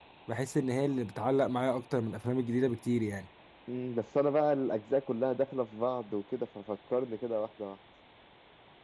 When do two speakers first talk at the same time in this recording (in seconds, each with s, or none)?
none